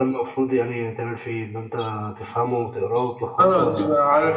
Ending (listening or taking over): taking over